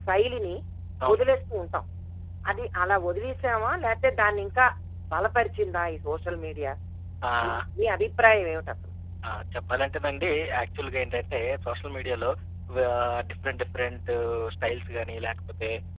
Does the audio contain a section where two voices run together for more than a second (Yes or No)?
No